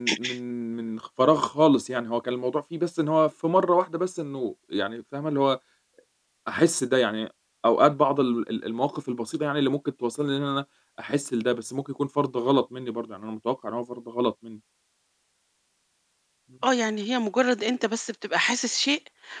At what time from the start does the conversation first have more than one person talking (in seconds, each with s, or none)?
none